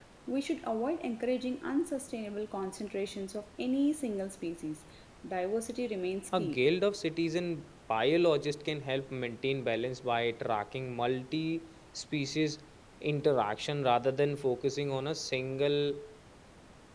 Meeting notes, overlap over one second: none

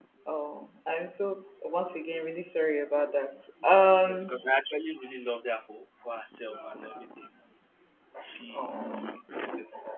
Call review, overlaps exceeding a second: none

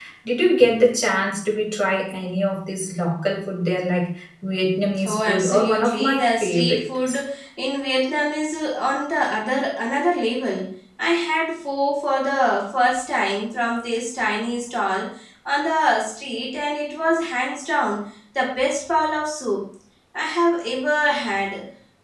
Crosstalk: present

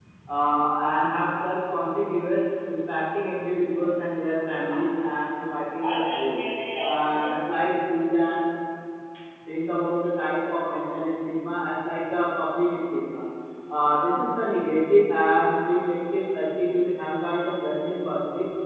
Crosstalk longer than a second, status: none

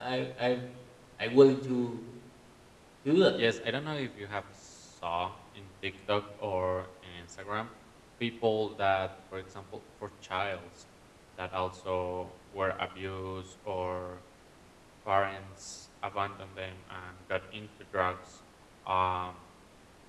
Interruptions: none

